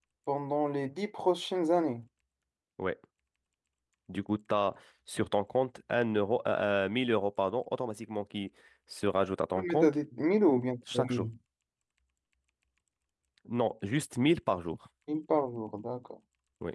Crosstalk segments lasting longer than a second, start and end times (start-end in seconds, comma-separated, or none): none